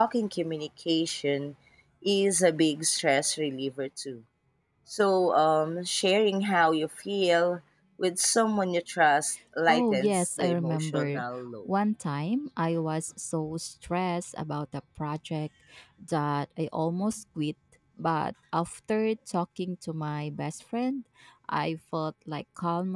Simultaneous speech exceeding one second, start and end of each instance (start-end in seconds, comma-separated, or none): 9.7-11.1